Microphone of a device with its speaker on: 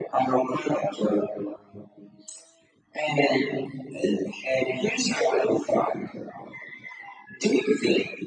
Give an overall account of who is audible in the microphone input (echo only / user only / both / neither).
echo only